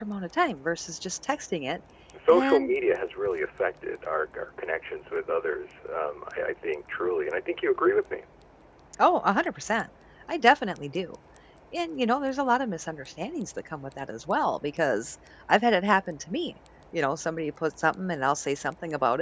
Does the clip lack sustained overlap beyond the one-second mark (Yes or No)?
Yes